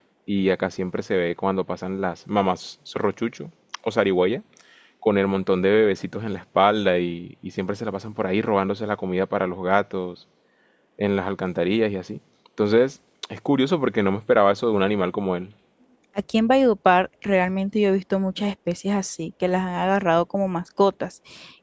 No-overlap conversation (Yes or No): Yes